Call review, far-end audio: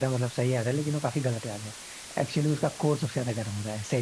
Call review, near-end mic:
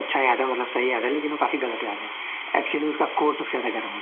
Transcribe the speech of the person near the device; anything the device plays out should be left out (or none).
none